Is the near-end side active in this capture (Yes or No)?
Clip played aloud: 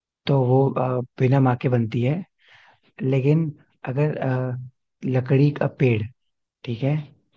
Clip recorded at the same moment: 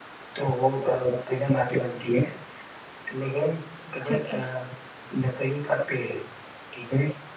Yes